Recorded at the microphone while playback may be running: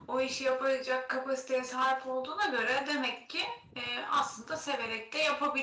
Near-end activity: none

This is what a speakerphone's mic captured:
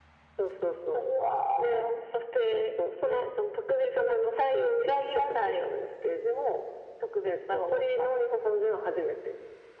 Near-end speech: none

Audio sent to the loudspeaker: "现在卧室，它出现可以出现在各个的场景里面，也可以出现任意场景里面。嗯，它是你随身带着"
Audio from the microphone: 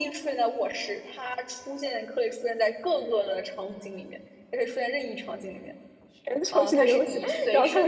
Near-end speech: present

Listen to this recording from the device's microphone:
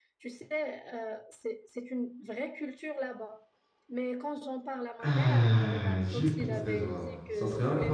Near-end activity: present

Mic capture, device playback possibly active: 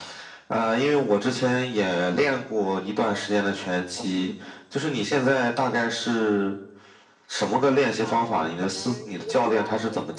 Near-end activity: present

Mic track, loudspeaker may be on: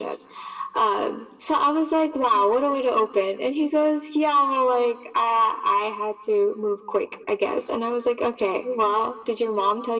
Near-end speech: none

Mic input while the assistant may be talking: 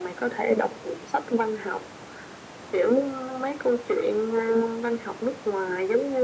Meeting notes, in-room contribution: none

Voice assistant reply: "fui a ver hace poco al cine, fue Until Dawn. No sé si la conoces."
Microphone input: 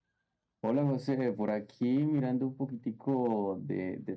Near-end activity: present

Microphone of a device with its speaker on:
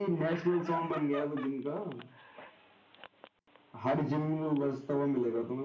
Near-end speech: none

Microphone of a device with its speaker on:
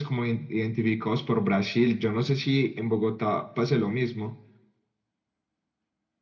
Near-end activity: none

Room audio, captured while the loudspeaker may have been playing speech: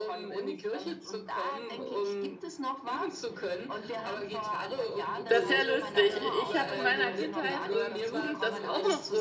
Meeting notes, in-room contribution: present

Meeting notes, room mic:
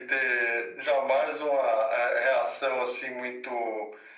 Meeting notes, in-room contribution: none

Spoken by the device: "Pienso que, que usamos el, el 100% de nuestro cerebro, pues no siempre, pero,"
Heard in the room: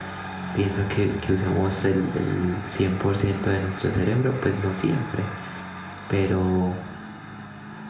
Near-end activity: none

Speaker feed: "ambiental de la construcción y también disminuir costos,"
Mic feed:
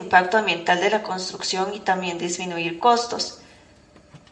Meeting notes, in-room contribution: none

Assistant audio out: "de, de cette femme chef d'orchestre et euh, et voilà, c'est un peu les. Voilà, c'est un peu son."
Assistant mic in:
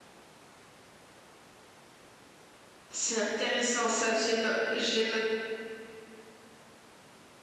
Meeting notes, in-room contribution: present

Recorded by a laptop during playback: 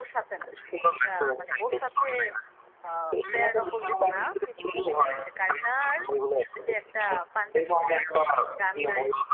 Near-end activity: present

